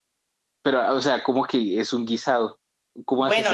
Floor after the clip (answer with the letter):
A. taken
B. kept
A